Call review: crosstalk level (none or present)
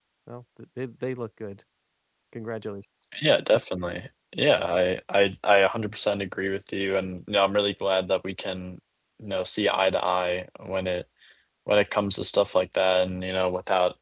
none